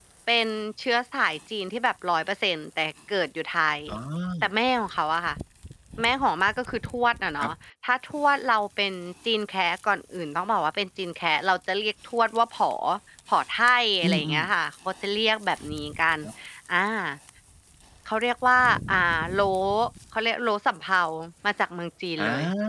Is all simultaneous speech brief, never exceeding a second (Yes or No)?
Yes